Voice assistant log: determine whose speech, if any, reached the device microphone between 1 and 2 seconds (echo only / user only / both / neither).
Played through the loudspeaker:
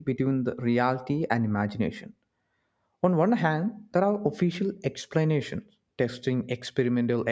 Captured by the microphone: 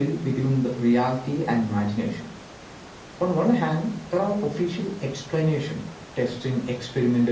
echo only